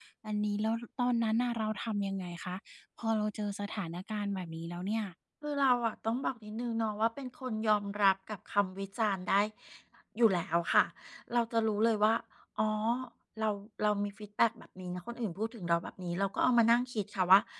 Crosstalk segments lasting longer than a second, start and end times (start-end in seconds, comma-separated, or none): none